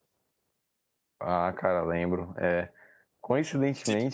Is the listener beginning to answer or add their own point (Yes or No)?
No